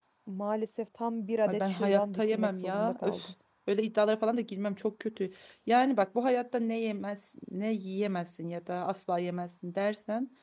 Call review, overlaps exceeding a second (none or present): present